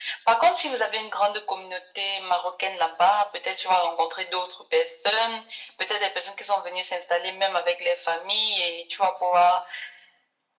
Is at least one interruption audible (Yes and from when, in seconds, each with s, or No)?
No